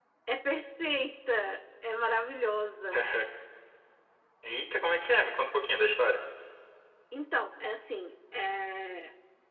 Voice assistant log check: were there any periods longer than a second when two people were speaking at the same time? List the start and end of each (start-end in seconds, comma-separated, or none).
none